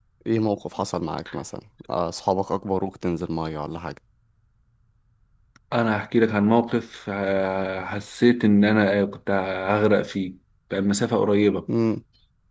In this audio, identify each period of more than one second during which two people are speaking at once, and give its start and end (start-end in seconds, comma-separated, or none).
none